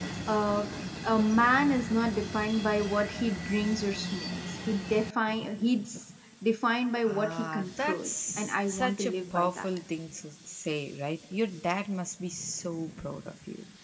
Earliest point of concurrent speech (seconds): 7.1 s

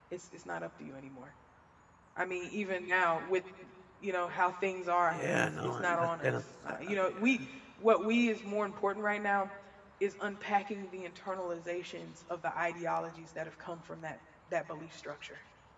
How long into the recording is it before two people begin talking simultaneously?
5.1 s

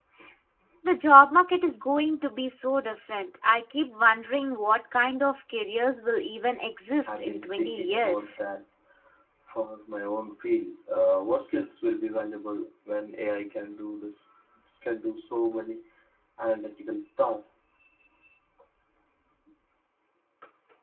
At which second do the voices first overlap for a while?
6.9 s

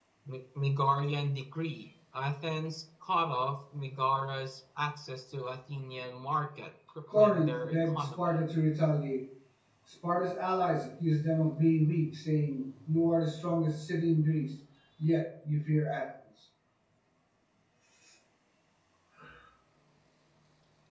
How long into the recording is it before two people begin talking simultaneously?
7.1 s

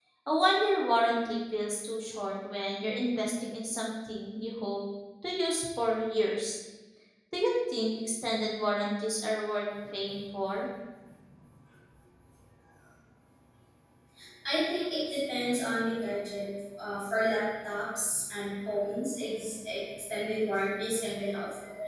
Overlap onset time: none

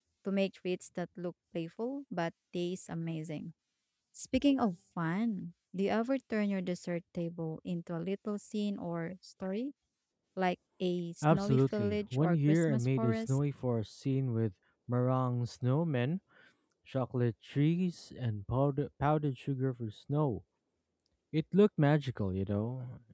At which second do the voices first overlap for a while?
11.2 s

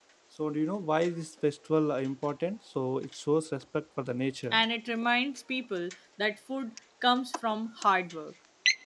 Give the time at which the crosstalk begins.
none

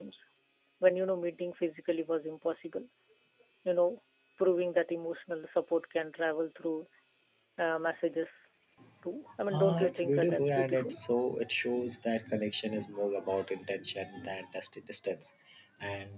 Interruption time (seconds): 9.5 s

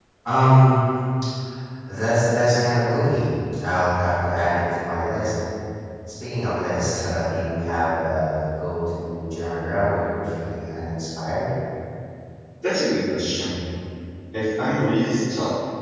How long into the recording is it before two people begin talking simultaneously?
none

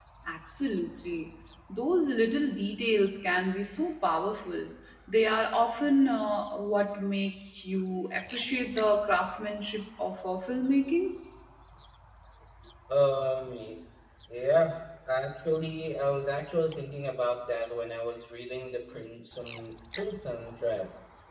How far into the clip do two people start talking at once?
none

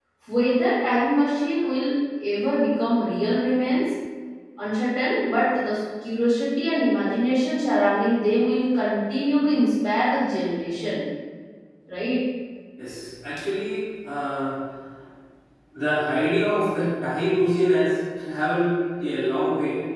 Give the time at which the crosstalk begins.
none

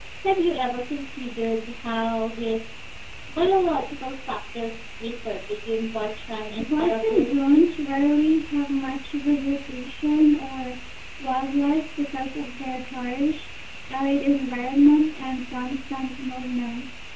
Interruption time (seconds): 6.6 s

